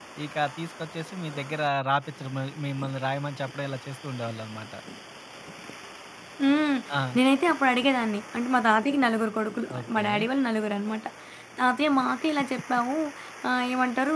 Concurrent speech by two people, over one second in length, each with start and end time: none

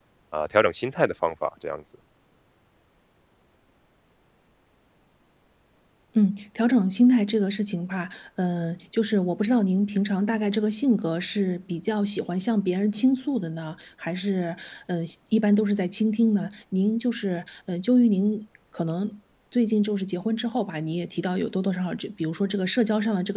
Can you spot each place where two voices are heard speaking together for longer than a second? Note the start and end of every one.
none

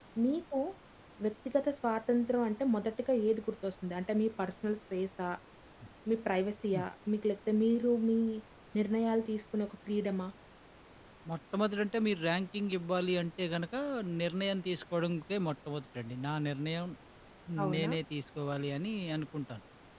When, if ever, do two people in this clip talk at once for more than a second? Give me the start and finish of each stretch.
none

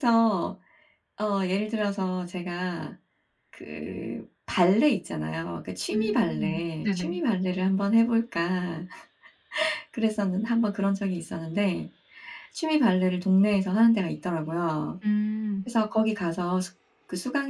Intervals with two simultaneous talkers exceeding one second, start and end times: 5.9-7.2

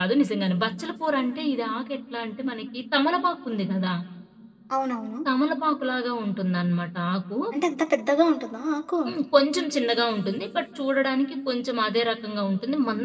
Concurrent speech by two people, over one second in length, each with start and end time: none

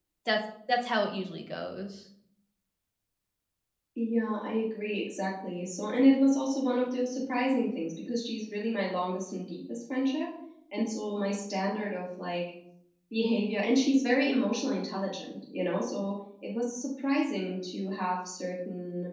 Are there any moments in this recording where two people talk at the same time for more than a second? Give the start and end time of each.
none

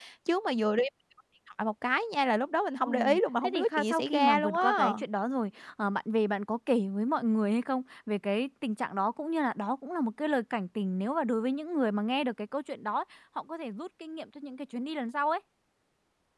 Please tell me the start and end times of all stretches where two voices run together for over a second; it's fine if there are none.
3.4-4.9

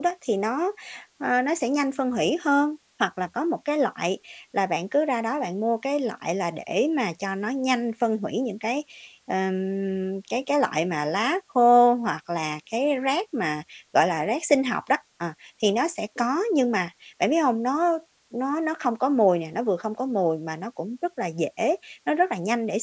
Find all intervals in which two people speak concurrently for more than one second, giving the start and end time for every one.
none

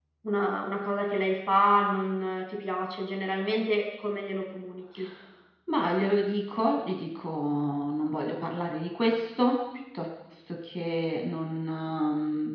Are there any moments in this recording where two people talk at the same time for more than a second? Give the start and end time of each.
none

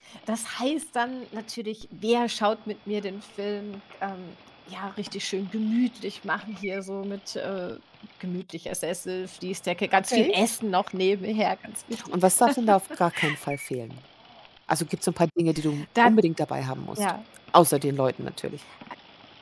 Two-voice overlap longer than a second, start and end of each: none

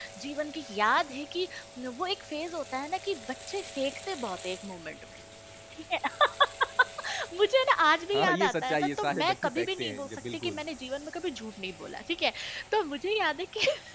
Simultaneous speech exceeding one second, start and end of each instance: 8.1-10.6

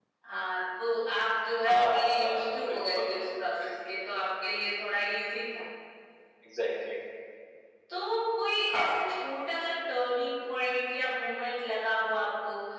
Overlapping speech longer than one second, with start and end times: 1.7-3.1

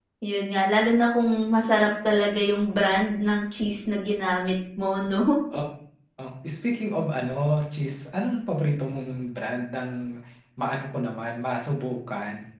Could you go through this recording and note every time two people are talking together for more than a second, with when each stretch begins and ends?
none

